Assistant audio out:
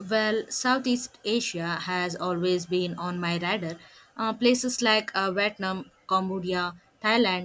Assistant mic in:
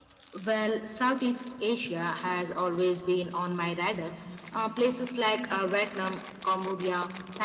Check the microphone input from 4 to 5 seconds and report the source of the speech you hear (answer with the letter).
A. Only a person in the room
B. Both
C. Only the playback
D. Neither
C